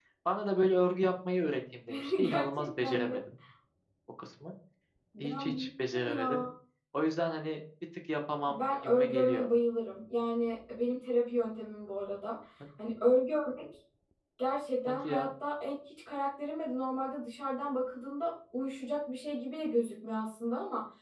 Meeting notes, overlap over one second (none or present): present